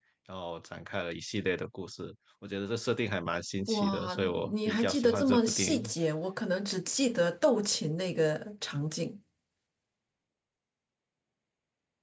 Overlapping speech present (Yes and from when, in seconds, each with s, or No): Yes, from 3.7 s